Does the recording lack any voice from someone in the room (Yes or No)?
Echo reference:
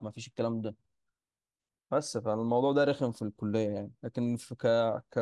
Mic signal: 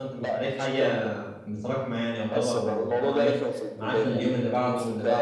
No